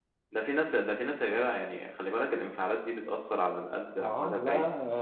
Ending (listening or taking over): taking over